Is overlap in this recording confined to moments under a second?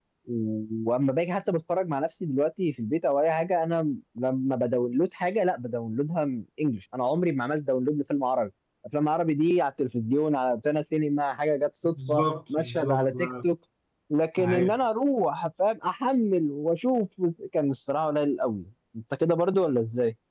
No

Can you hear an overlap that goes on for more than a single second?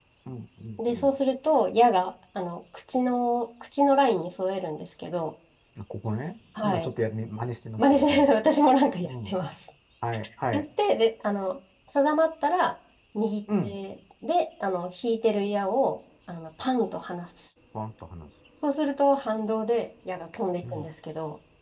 No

